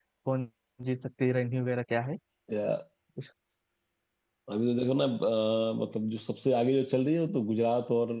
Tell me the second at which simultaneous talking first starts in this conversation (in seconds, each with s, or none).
none